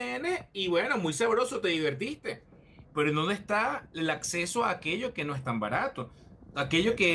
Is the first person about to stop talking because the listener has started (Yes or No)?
No